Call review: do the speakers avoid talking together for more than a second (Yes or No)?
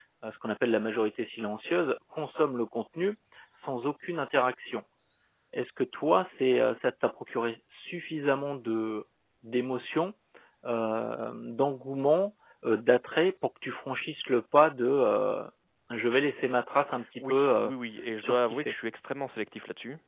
Yes